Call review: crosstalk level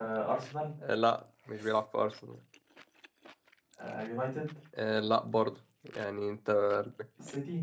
none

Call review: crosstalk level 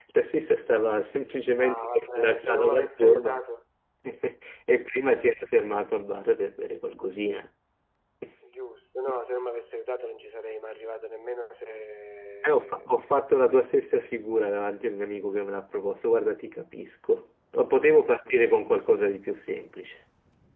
present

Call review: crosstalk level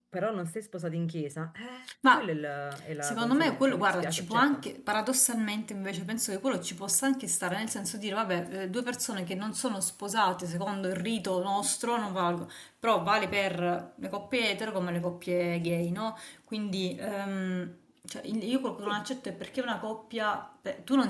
present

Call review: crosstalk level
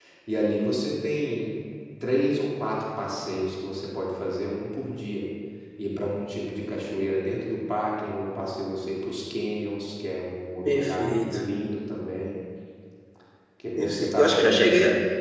present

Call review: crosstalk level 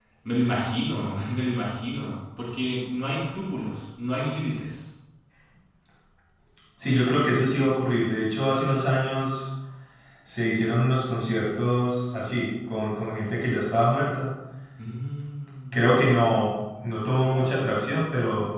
none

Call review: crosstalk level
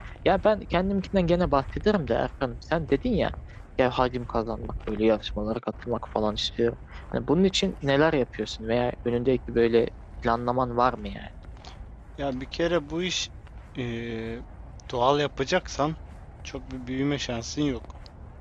none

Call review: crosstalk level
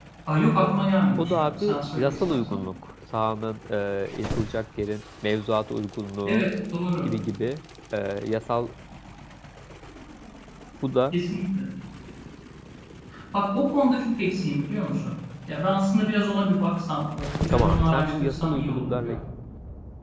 present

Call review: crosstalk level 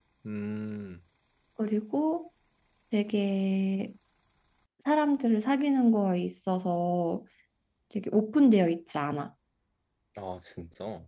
none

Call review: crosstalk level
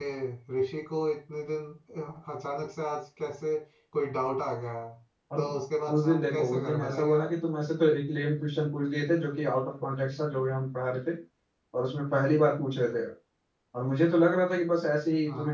present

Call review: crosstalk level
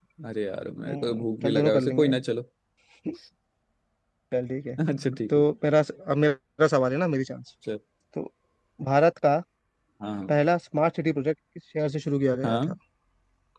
present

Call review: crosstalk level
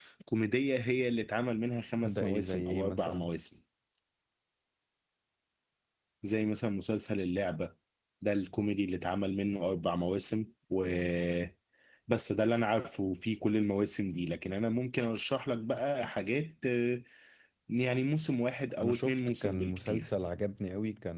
present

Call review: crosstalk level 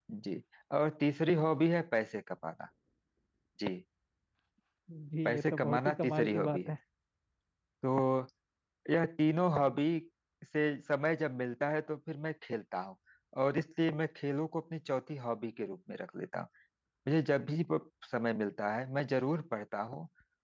present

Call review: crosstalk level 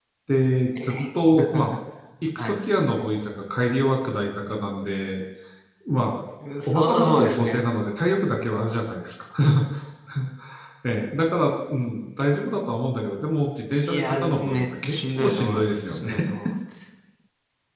present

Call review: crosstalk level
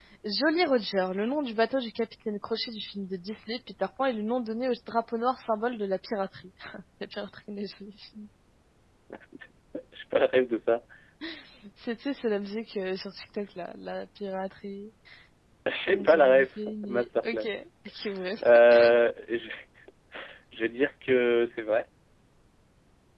present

